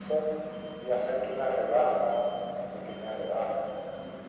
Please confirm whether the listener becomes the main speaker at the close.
Yes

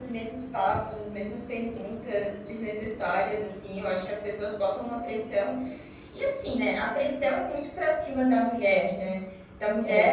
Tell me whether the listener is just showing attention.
Yes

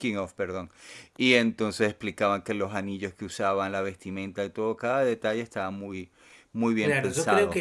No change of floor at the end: No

